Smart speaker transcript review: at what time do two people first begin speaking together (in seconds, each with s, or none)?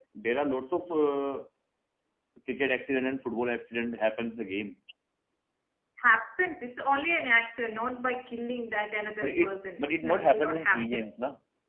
9.2 s